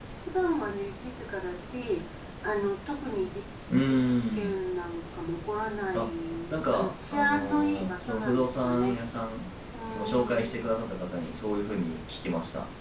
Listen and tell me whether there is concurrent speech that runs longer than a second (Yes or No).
Yes